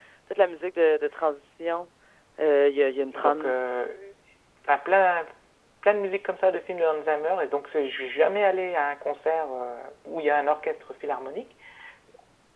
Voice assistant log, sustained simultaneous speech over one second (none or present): none